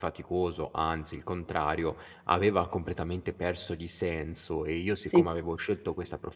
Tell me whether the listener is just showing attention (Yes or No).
Yes